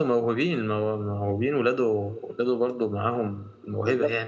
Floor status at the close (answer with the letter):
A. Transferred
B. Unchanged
A